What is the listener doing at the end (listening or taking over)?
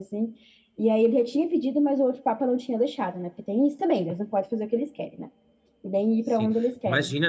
taking over